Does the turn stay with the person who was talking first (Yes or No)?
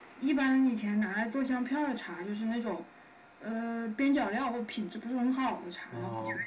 Yes